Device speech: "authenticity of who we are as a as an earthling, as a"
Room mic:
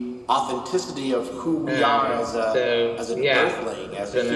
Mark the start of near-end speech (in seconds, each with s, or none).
1.7 s